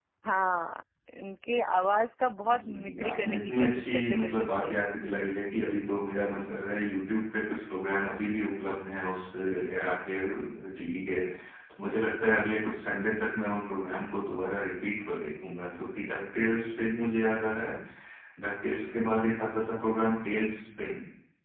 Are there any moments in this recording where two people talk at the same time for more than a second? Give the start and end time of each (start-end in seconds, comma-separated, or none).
2.6-4.8